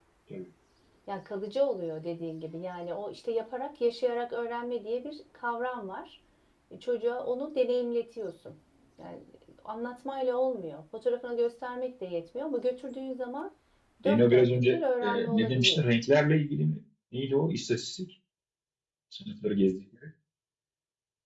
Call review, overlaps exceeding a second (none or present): present